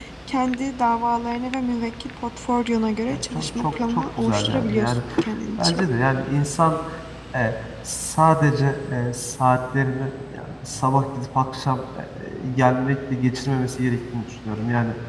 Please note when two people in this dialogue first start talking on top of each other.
3 s

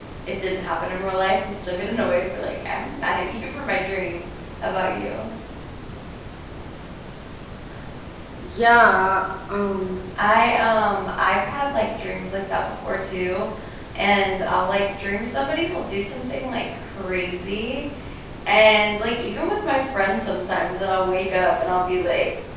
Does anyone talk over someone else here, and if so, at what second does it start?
none

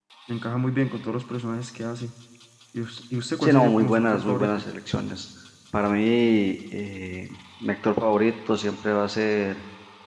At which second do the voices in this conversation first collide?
3 s

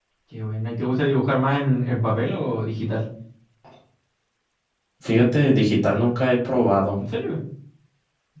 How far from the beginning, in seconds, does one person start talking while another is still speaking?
none

